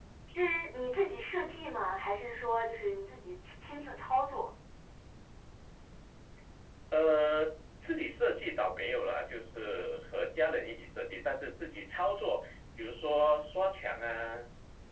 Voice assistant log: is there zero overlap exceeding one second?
Yes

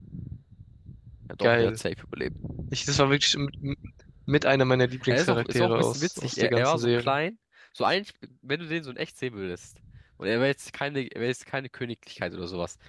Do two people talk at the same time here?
Yes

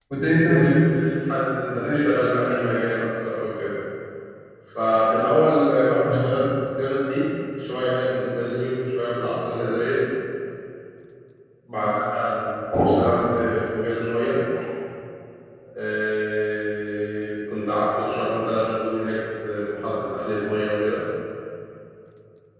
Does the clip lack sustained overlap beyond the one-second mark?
Yes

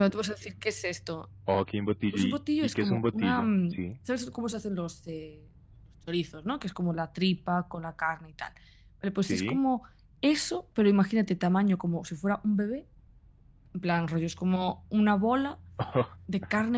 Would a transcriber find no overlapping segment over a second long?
No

